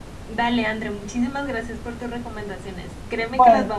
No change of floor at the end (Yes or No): Yes